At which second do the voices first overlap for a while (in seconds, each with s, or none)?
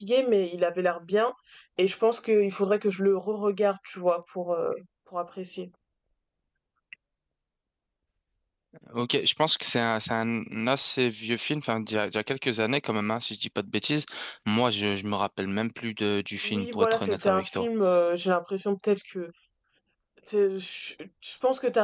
16.4 s